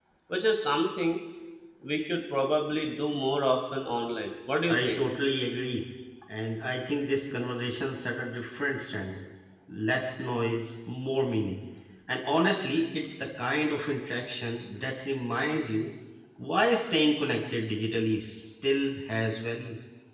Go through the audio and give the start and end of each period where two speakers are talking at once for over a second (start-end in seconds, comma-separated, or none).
none